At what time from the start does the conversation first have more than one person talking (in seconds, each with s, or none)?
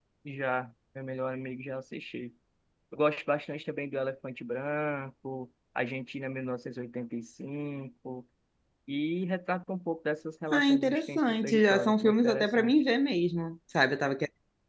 10.5 s